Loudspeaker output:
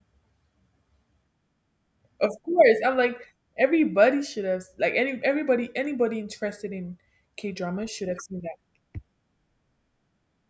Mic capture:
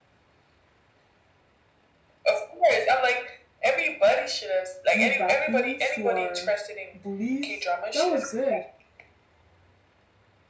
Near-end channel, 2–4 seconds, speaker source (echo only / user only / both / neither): echo only